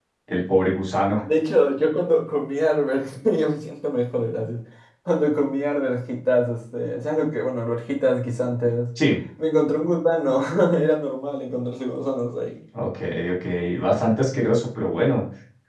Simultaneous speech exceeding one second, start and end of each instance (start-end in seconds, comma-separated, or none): none